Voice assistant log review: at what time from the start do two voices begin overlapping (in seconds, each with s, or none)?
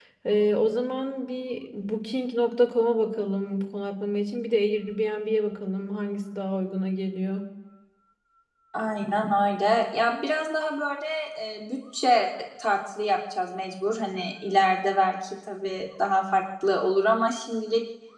none